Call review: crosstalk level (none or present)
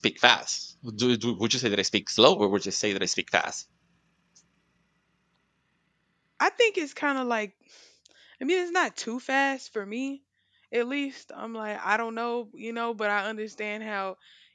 none